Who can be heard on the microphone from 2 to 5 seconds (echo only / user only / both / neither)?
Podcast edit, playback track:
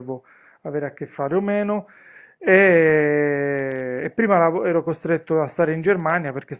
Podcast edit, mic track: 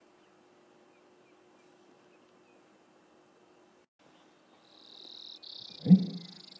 neither